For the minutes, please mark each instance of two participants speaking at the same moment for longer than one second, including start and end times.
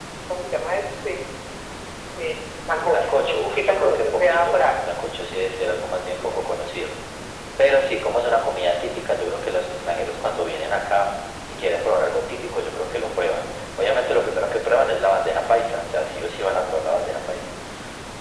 2.8-4.9

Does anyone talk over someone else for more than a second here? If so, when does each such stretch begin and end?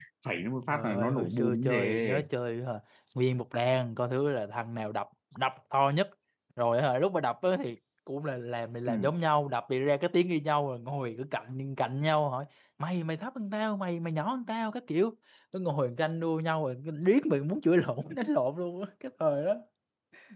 0.7-2.2

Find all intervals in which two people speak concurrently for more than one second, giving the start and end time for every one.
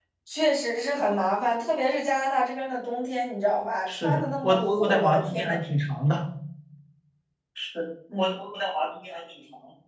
4.0-5.6

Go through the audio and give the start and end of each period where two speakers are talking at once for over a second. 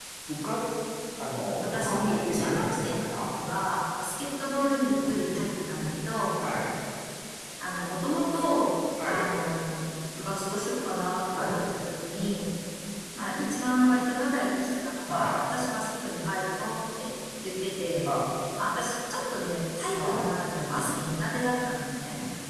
1.6-3.2

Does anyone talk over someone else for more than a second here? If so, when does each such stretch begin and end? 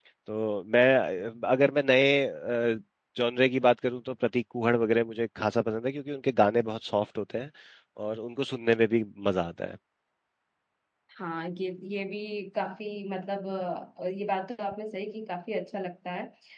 none

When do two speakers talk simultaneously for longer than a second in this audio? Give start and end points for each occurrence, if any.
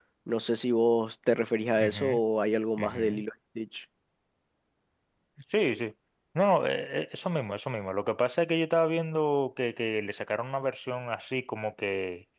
none

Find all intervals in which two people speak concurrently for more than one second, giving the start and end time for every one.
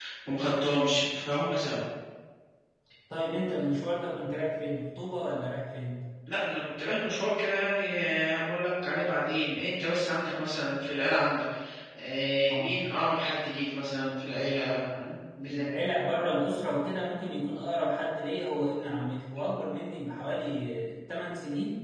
none

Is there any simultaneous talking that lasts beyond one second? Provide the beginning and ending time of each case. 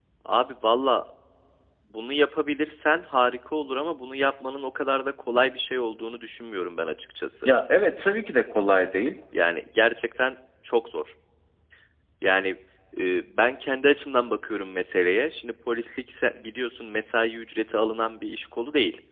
none

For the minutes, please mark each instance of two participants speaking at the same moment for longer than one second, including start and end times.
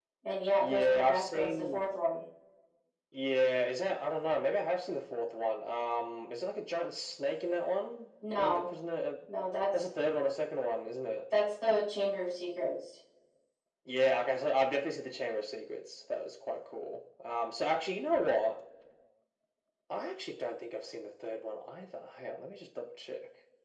0.6-1.8

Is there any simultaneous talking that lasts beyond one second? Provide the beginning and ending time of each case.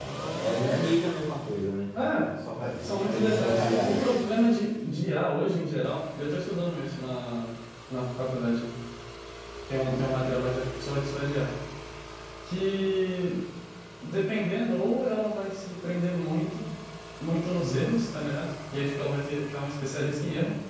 2.6-4.0

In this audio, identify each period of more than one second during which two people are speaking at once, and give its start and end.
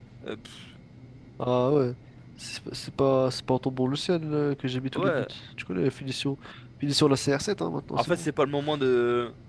none

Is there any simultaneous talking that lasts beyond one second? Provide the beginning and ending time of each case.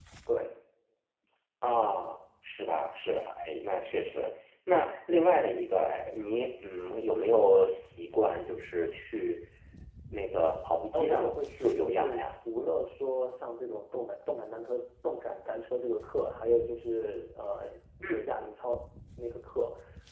10.9-12.2

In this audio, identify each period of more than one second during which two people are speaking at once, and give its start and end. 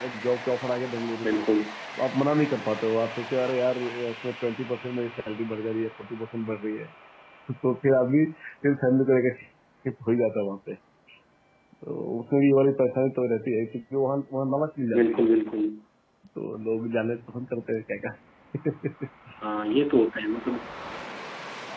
none

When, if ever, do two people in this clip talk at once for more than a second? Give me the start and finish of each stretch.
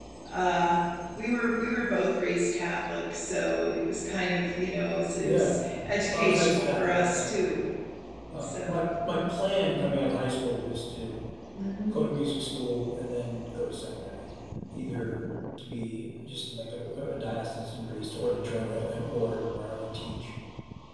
6.1-7.4

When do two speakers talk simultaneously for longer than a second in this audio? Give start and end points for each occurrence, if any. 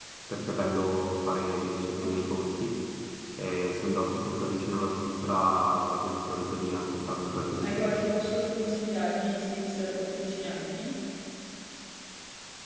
none

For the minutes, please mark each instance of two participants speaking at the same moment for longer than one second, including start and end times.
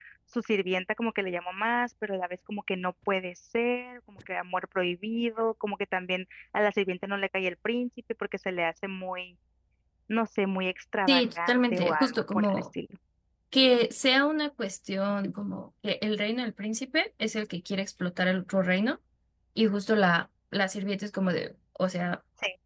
11.1-12.6

